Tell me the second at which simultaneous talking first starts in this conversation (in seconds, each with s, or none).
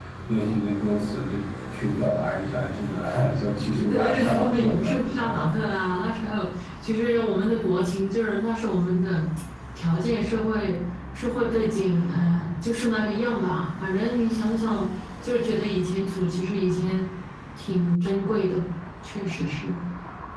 3.7 s